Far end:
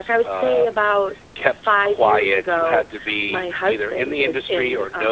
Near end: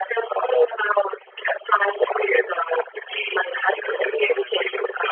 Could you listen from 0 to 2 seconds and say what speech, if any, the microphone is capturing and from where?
echo only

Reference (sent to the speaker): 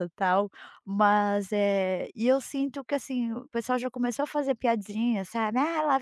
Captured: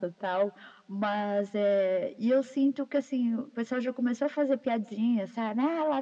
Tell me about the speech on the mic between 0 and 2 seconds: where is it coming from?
echo only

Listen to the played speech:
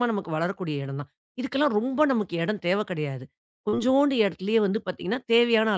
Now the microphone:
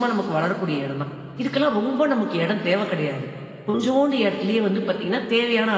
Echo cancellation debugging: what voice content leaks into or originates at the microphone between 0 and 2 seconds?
echo only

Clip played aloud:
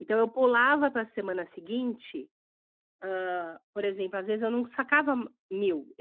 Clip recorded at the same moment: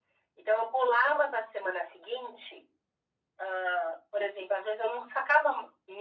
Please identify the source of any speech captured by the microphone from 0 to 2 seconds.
echo only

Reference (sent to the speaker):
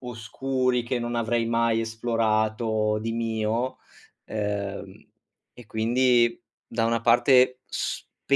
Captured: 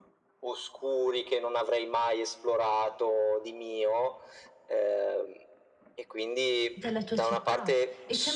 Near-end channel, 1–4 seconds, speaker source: echo only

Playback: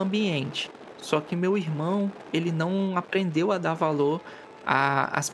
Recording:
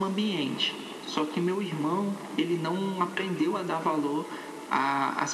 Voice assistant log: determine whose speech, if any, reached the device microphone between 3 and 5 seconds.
echo only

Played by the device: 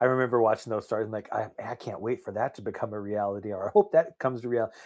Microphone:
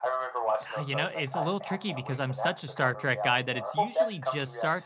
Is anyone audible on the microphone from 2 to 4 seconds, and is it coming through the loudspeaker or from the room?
both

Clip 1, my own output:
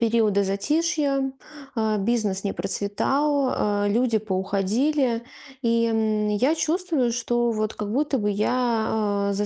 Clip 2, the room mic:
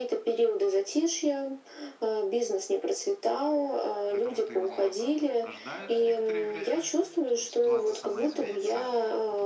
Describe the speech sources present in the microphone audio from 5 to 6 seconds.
both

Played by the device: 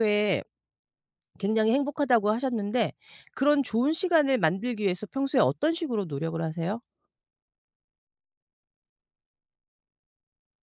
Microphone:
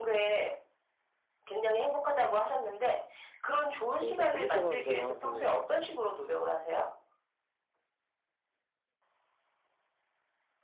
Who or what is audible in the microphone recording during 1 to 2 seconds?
echo only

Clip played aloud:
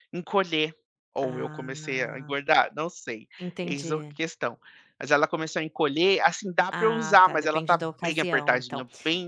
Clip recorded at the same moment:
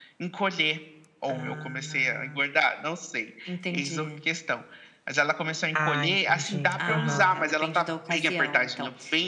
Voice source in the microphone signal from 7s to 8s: both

